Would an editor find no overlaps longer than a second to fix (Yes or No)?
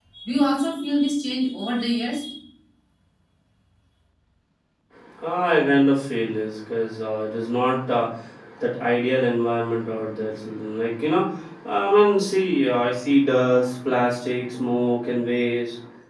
Yes